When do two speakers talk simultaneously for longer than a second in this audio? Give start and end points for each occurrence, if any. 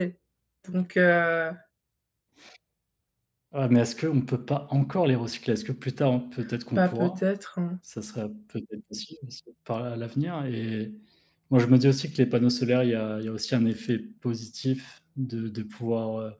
none

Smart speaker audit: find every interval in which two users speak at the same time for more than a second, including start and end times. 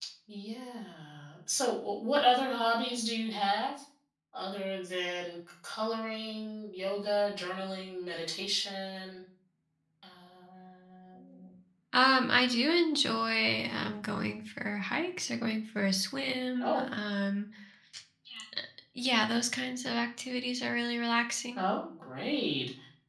none

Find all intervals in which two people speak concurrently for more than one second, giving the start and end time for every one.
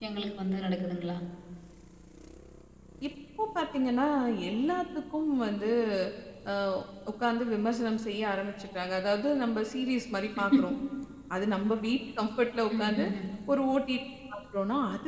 none

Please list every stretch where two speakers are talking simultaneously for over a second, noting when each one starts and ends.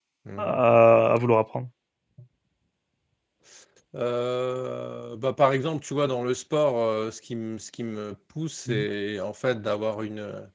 none

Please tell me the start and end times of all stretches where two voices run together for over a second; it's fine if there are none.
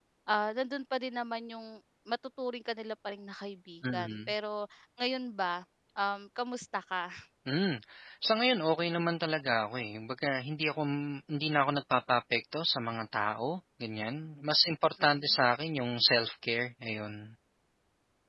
none

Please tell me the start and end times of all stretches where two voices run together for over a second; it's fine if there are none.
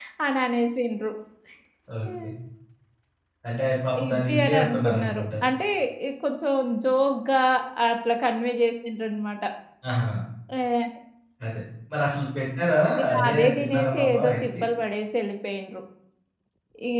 4.0-5.2, 13.2-14.5

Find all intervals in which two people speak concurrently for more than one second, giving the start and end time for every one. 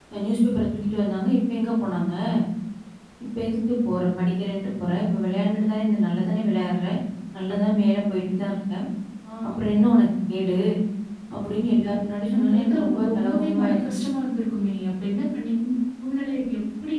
12.3-13.8

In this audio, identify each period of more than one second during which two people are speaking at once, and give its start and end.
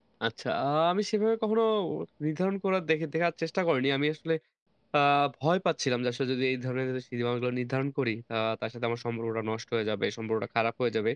none

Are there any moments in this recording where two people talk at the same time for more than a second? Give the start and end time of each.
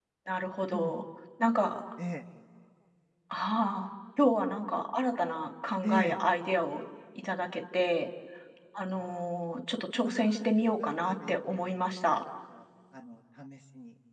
10.1-11.7

